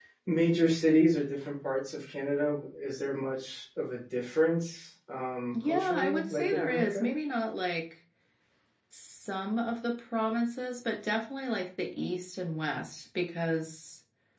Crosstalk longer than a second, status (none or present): present